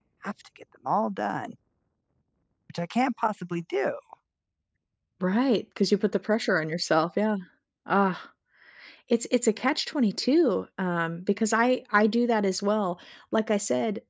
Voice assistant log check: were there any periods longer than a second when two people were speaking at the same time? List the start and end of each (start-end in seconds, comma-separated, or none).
none